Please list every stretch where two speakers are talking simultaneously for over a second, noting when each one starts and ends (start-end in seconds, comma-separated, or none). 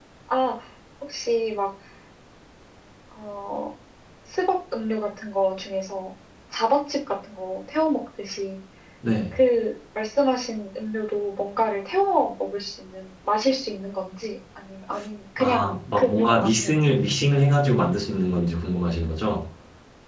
15.4-16.9